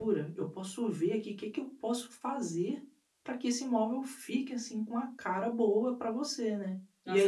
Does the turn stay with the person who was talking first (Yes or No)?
No